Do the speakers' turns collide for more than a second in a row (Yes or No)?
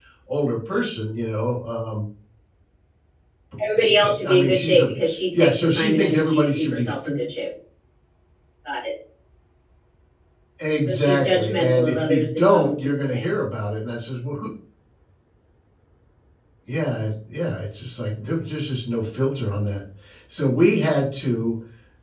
Yes